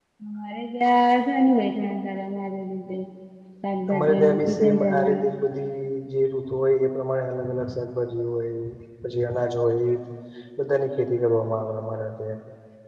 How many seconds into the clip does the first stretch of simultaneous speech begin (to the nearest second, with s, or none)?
4 s